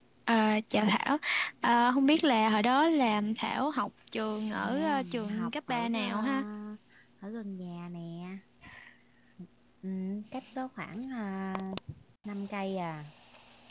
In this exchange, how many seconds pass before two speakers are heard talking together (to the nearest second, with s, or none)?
5 s